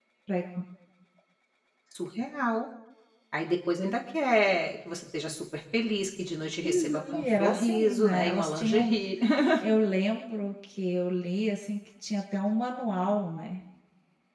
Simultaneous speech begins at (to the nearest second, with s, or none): 7 s